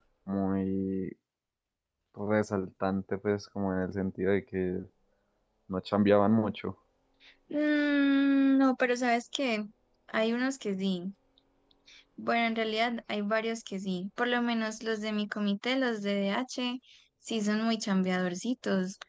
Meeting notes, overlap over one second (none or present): none